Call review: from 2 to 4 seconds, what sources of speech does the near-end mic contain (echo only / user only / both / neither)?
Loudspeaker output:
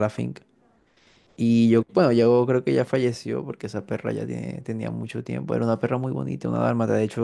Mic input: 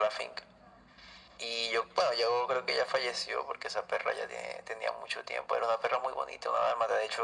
echo only